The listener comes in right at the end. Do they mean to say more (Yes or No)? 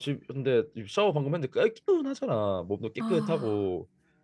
No